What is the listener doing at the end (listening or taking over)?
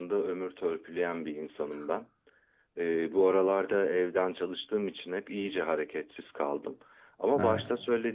listening